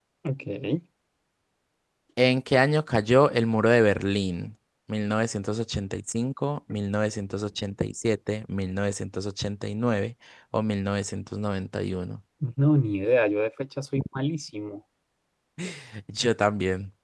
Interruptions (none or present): none